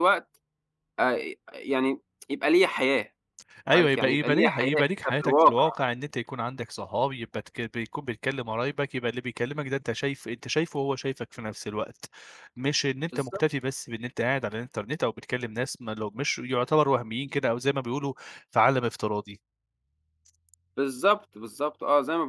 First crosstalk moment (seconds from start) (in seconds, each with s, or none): 3.7 s